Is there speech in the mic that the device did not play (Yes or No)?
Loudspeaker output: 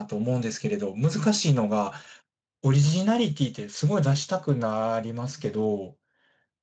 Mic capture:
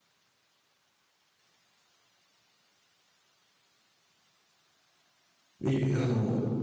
Yes